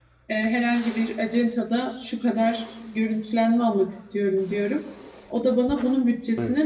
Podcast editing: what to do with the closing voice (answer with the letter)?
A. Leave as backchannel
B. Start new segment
A